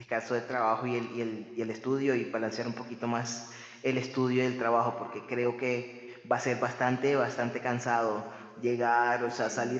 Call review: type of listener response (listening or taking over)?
listening